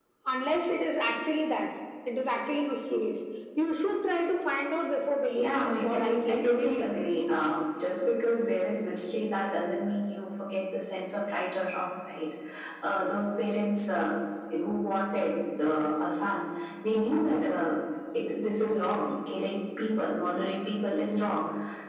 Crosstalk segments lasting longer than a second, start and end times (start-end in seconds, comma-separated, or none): 5.4-6.9